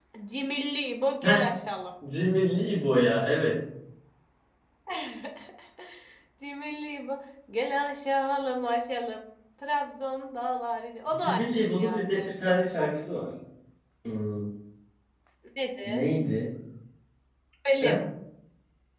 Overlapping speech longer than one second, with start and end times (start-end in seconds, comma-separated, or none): 11.2-12.9